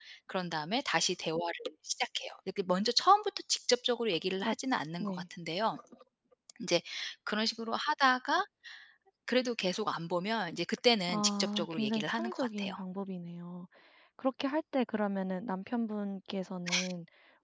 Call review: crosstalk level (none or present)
present